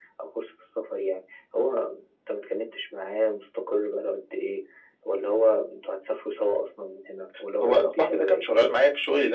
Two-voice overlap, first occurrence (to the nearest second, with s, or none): 8 s